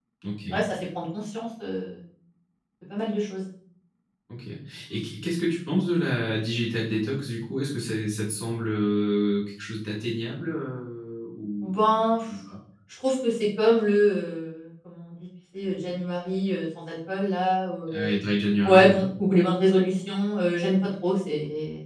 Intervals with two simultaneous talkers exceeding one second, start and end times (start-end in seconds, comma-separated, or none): none